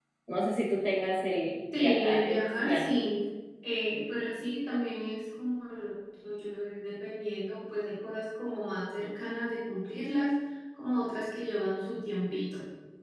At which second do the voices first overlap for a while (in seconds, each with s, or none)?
1.7 s